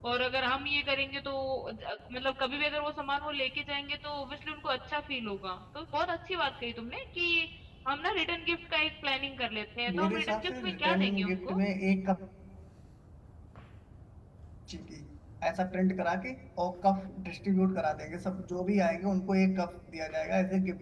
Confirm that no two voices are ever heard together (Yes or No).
No